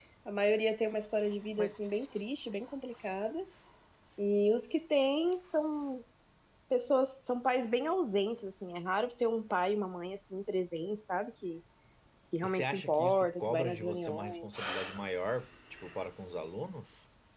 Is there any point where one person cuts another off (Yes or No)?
Yes